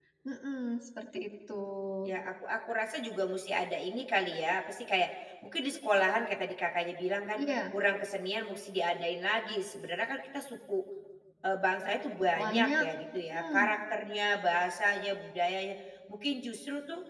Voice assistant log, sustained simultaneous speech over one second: none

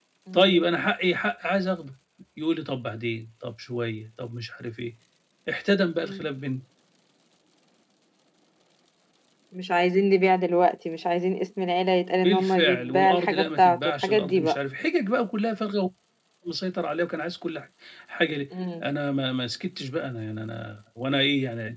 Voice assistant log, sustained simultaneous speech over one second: present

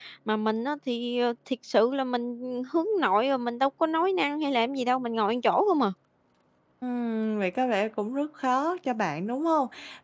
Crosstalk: none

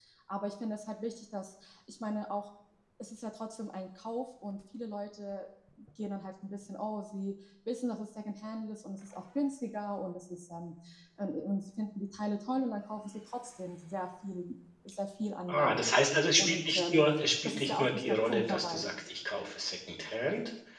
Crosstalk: present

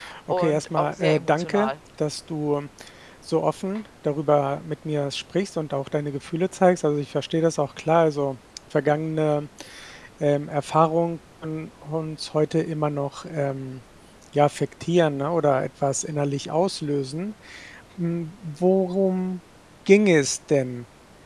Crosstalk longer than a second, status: present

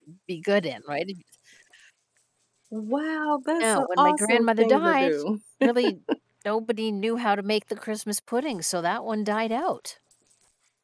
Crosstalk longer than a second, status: present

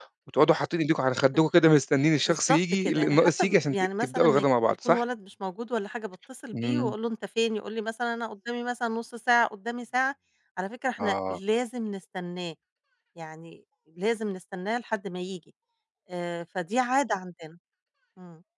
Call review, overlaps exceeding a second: present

